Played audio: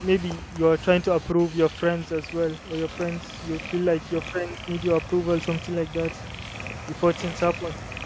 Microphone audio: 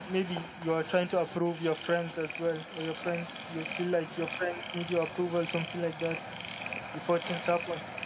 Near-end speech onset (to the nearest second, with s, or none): none